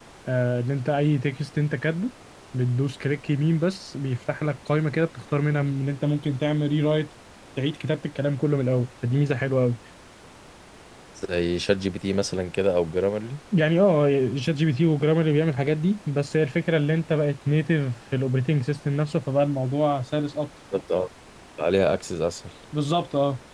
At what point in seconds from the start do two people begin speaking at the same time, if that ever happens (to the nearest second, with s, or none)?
none